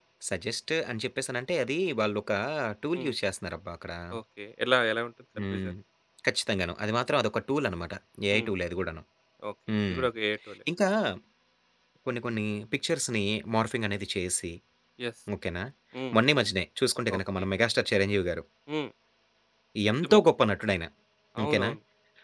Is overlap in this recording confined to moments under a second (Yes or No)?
Yes